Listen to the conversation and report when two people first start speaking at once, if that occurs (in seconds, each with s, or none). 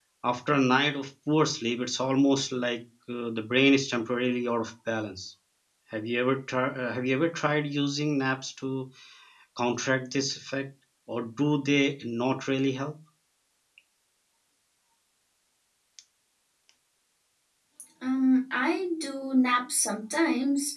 none